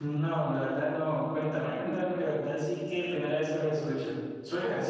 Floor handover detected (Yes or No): Yes